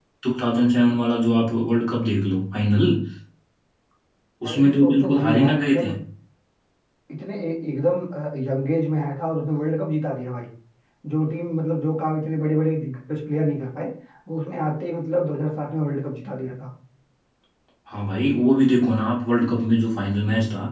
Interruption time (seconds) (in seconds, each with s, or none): 4.5 s